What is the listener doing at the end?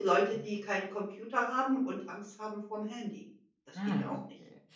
taking over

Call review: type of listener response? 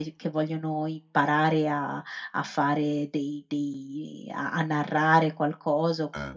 listening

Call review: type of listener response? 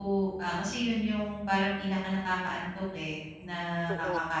listening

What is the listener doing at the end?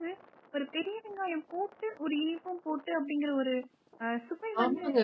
taking over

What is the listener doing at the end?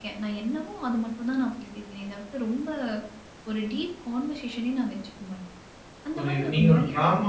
taking over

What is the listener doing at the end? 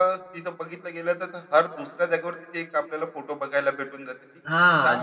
taking over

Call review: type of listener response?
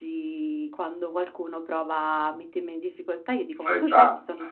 listening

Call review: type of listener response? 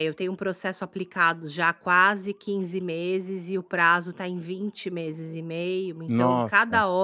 listening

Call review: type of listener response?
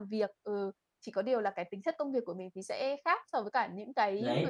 taking over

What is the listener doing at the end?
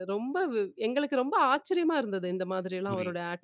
taking over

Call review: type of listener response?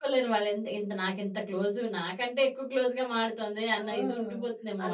taking over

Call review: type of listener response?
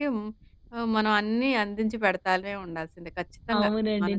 taking over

